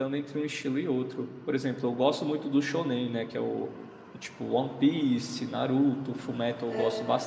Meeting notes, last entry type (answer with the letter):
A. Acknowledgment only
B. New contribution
A